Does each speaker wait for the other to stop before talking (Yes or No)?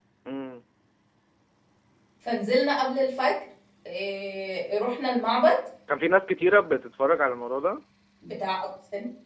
Yes